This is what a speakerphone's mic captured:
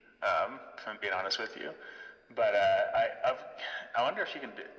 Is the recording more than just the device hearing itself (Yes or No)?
No